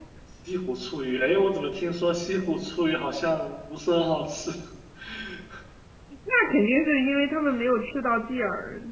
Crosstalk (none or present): none